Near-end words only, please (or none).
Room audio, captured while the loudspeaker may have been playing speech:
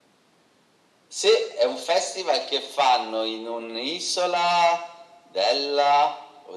none